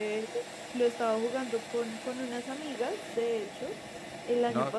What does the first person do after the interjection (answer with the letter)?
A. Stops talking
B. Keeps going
B